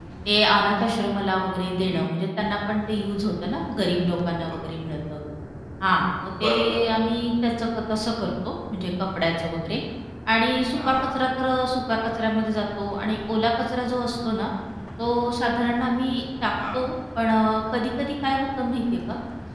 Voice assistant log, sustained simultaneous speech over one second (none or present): none